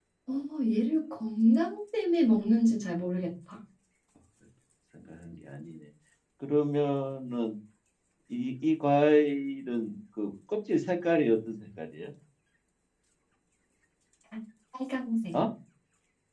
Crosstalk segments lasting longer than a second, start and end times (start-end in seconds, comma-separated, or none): none